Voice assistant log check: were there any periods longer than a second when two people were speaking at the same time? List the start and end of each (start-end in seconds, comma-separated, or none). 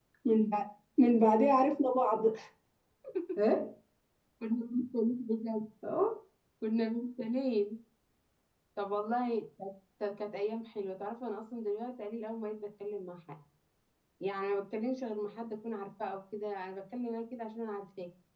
none